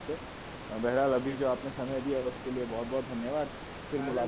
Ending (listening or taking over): taking over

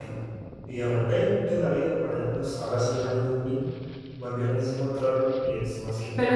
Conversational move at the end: taking over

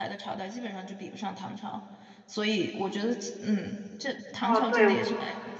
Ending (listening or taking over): taking over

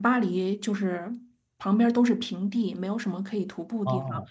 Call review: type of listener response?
listening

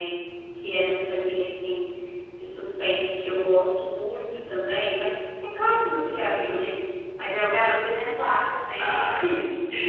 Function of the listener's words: taking over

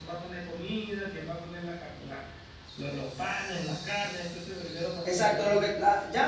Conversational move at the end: taking over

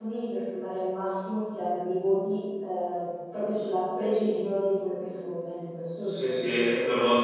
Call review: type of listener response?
taking over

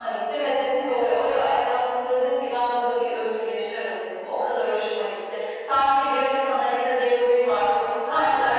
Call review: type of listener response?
listening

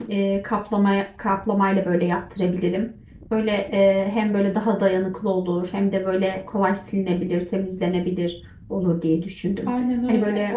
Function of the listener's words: taking over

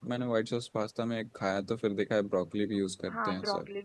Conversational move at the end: taking over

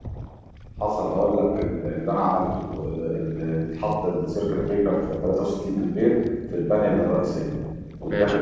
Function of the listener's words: listening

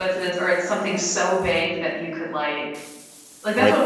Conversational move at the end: listening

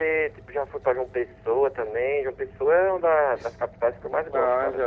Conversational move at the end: taking over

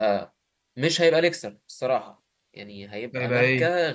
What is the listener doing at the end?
listening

